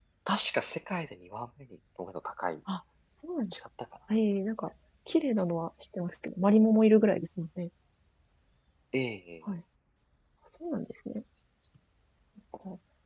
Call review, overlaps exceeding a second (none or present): none